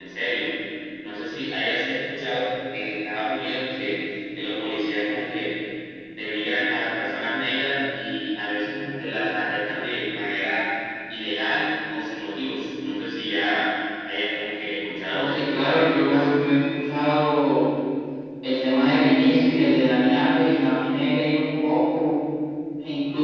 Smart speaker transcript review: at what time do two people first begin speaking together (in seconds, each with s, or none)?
15.1 s